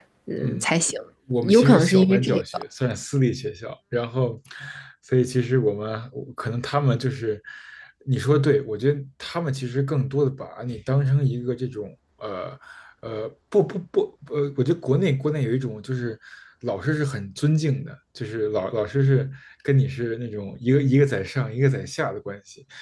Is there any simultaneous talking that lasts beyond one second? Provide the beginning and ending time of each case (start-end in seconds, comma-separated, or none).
1.4-2.6